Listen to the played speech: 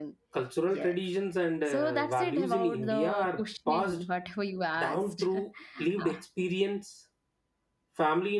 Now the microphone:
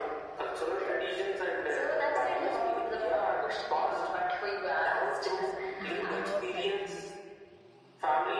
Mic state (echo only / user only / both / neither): both